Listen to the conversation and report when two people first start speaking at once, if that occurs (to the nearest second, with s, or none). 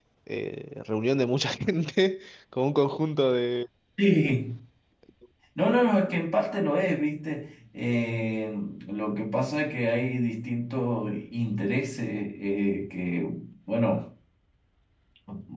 none